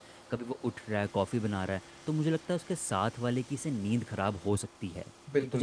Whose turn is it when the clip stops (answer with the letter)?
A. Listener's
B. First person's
A